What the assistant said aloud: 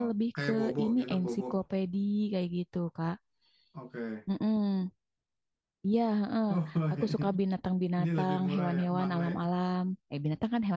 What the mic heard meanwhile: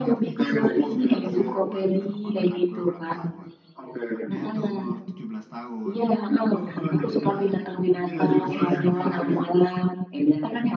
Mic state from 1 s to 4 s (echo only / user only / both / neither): both